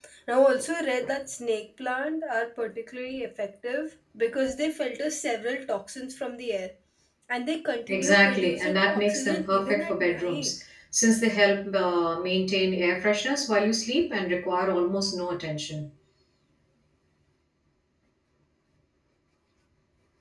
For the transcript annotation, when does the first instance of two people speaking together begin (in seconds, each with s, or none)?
7.9 s